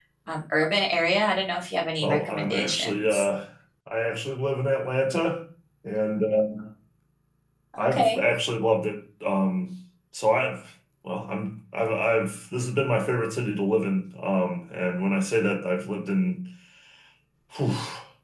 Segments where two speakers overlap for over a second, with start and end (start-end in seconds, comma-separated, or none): 2.0-3.3